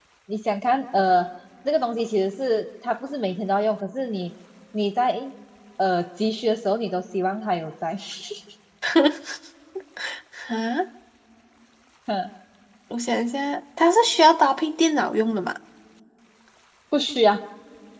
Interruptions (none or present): none